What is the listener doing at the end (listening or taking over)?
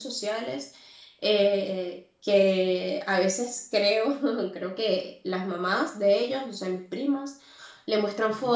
listening